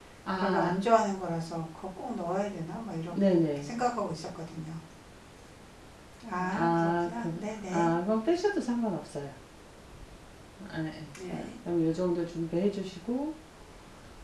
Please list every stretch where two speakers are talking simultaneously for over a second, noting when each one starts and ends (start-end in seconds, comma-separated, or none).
6.4-7.9